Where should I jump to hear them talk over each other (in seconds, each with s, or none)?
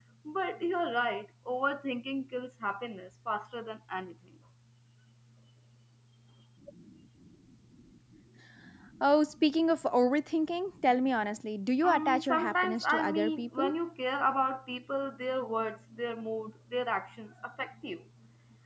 11.8 s